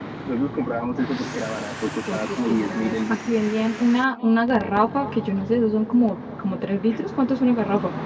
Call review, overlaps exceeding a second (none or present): present